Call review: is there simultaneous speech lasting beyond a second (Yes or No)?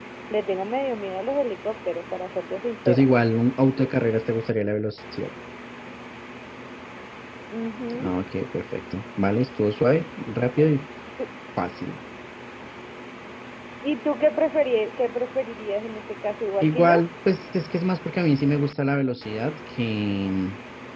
No